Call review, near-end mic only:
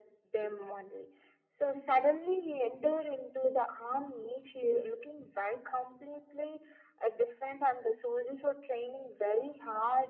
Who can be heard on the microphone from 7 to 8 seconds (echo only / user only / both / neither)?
echo only